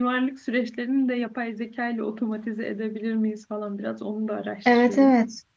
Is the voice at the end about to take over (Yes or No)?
Yes